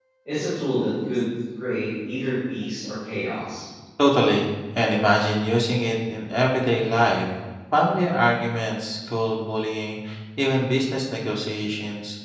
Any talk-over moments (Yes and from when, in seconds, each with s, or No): No